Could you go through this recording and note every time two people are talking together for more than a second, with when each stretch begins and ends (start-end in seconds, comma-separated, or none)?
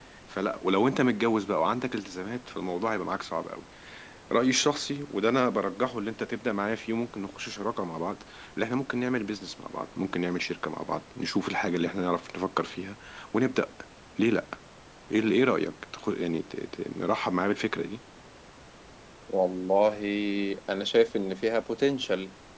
none